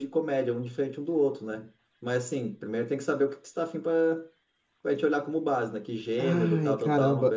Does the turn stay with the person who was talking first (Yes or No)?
No